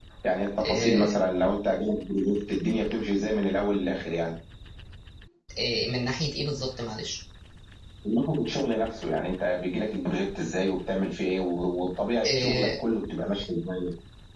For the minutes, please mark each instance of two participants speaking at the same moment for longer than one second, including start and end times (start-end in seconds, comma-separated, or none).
none